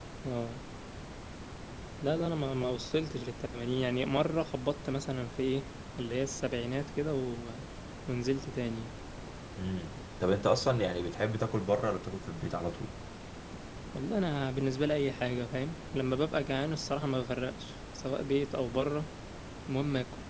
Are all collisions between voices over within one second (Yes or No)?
Yes